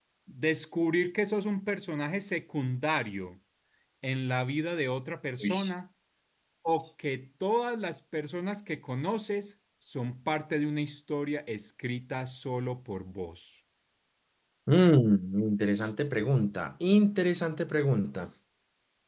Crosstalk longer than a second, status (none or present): none